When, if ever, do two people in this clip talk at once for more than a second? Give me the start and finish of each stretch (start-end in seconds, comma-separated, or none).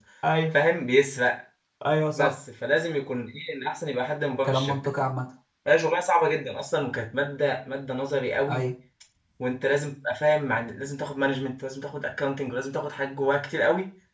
none